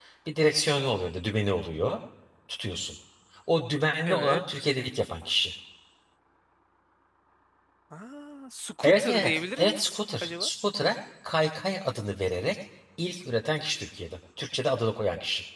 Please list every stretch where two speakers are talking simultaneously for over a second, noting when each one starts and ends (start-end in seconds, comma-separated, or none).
8.8-10.5